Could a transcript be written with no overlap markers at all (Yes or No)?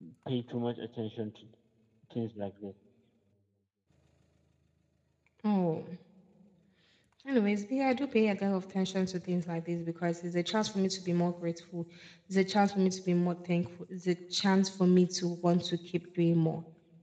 Yes